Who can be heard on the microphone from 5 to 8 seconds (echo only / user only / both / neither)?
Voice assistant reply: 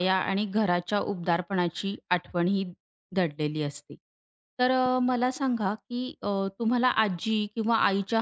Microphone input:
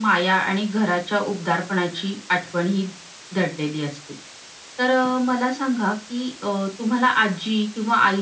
echo only